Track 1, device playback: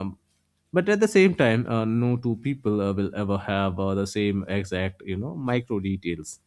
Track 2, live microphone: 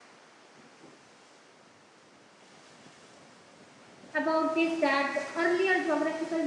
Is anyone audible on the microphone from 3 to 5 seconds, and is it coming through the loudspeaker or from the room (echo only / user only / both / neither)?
user only